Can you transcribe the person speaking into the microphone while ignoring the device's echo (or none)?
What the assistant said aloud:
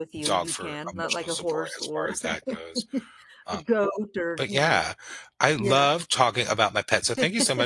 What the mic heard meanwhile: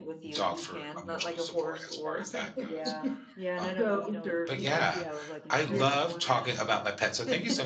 Yeah. Yeah, and I don't know, you know, i if you have, like, insurance for them, but